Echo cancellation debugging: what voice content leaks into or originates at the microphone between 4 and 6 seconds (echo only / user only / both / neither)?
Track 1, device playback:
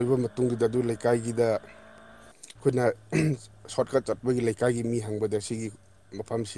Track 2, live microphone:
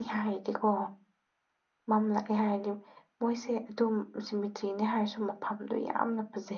user only